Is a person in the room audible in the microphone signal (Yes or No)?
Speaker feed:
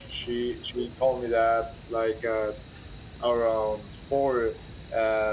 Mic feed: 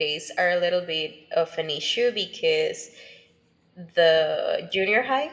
Yes